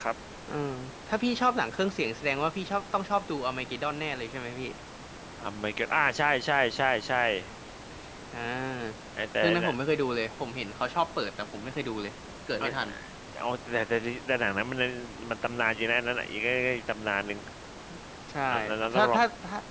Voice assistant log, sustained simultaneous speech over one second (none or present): none